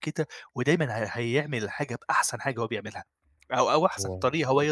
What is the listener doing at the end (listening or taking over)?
listening